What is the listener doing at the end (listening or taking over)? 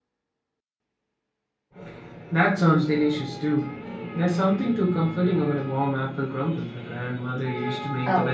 taking over